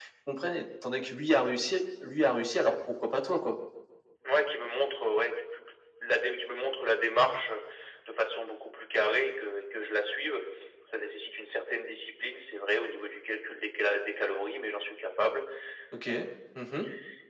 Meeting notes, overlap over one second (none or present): none